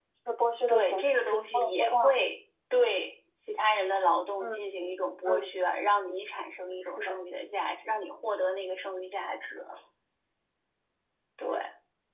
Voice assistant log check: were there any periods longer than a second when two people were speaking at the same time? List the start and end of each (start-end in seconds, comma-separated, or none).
0.7-2.2